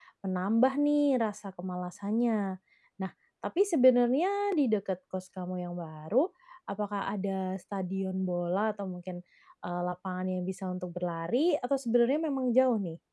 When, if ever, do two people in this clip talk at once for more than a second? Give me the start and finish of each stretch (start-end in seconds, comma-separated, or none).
none